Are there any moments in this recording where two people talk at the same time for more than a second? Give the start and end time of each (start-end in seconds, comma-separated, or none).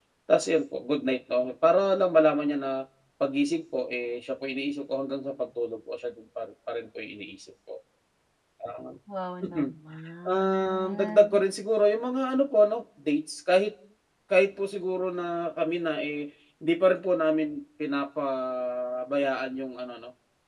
10.3-11.5